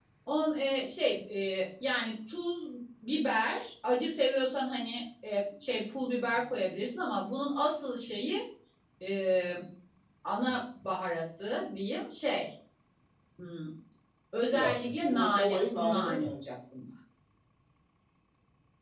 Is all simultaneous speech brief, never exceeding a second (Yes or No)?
No